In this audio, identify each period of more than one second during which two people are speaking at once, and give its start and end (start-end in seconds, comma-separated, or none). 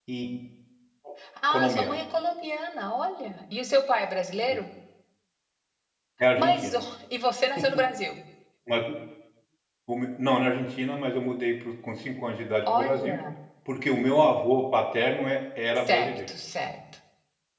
none